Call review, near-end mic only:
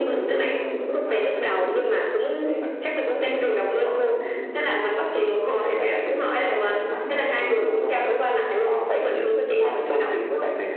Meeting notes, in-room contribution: none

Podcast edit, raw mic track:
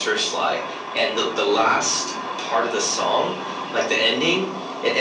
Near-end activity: none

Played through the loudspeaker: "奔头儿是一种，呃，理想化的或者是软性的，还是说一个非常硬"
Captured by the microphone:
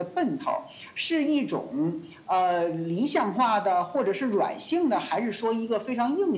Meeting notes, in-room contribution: none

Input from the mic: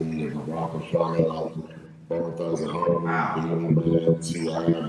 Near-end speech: present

